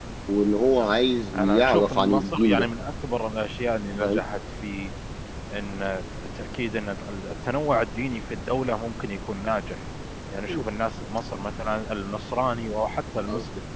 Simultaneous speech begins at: 1.3 s

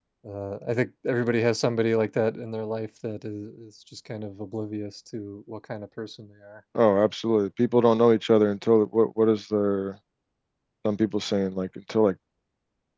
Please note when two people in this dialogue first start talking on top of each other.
none

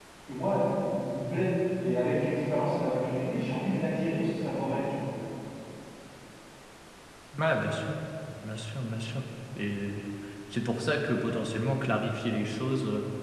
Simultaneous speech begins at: none

